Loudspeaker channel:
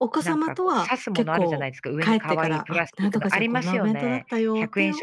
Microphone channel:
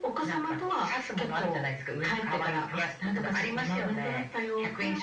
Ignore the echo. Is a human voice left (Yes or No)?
No